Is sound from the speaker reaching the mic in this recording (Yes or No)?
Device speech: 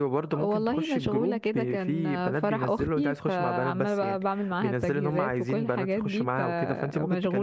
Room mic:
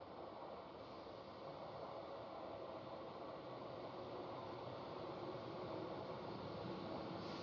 No